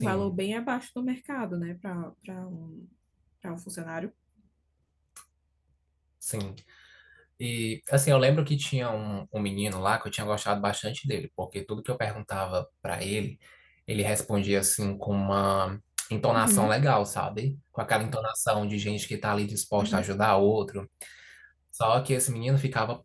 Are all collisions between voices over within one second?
Yes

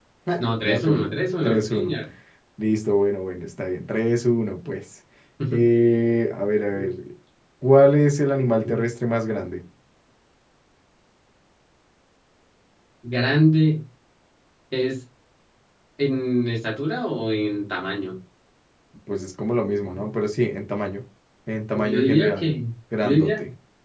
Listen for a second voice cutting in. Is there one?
Yes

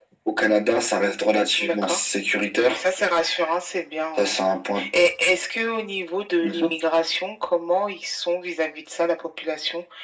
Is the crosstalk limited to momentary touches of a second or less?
Yes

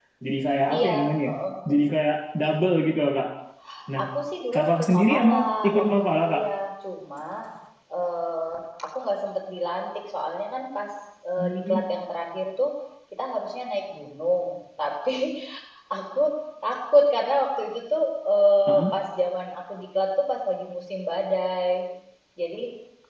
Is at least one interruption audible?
Yes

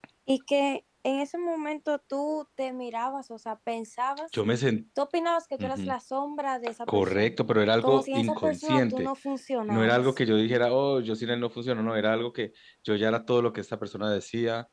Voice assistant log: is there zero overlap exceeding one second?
No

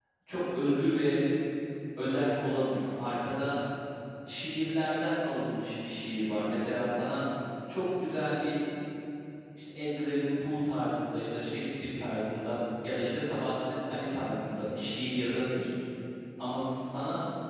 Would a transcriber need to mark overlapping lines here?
No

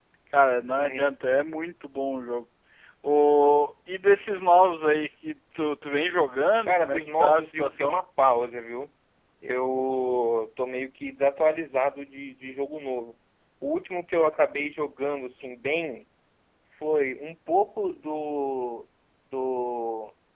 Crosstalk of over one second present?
Yes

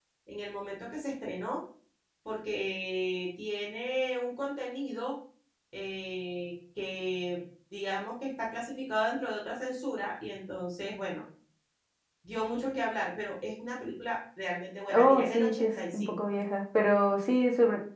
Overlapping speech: Yes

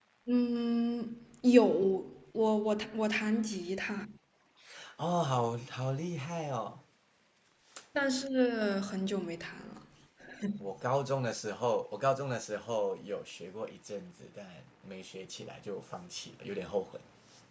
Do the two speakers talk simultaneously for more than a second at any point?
No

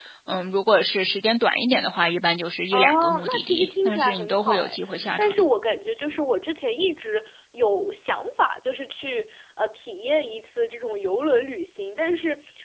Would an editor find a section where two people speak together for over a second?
Yes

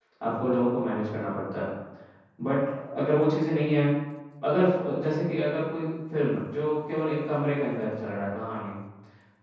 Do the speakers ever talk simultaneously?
No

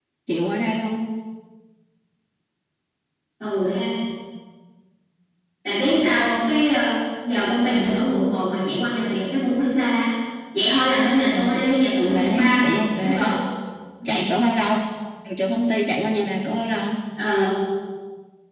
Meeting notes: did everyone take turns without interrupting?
No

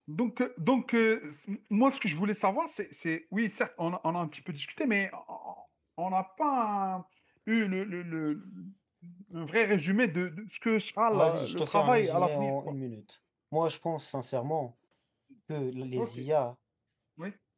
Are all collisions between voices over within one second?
No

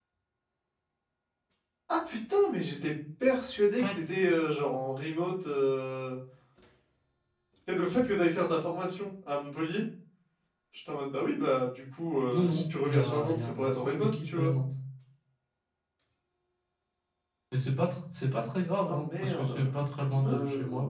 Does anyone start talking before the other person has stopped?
Yes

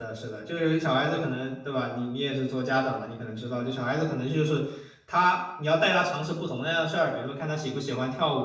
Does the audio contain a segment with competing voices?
No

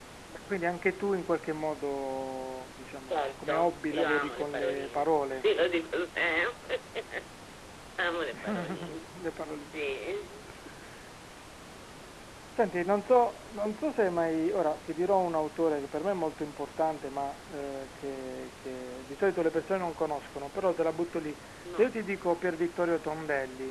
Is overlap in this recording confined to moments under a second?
No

